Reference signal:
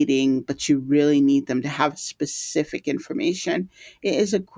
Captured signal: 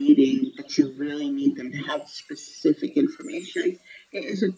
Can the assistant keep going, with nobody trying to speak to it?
Yes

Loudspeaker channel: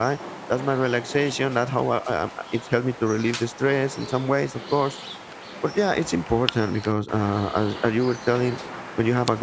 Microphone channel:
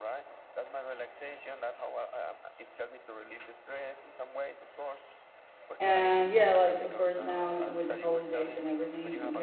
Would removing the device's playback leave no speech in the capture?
No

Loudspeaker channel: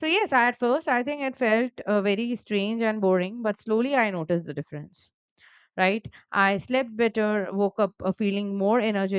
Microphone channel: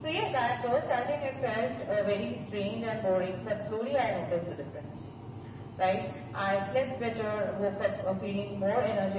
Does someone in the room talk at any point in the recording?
No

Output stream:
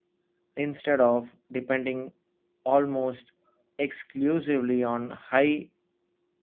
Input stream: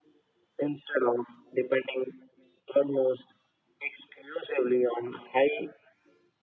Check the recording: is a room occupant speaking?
No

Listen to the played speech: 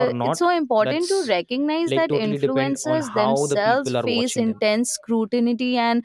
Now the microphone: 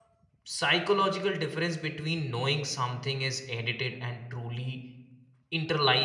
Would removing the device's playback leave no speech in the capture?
No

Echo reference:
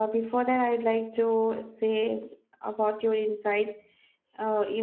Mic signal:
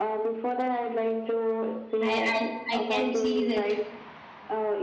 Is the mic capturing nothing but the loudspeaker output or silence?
No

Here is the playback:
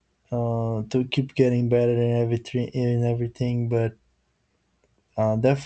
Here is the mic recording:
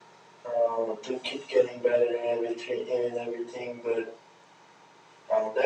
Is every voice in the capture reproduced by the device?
Yes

